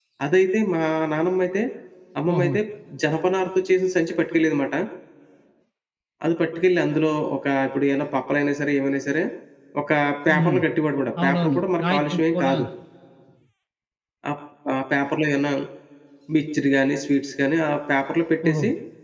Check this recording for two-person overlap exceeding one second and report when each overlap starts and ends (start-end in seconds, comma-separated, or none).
11.2-12.5